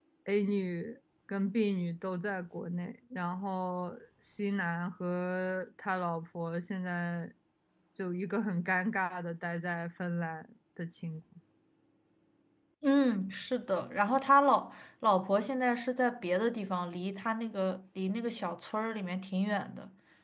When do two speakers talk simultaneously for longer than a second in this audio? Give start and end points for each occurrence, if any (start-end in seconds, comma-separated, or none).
none